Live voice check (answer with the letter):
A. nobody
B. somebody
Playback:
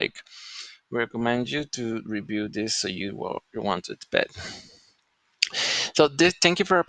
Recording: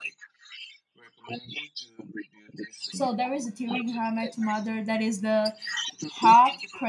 B